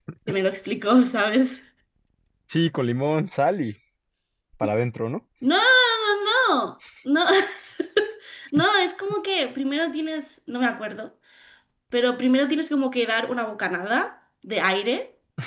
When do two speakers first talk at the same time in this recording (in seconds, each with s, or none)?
none